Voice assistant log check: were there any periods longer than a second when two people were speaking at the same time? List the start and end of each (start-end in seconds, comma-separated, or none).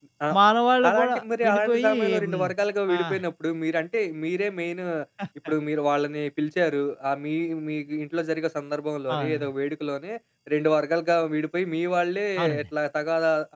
0.9-2.4